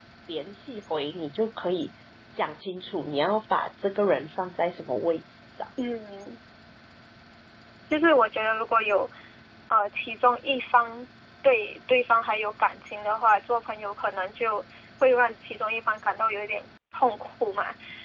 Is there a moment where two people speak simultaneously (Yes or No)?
No